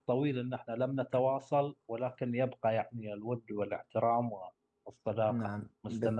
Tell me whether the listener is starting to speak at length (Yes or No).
Yes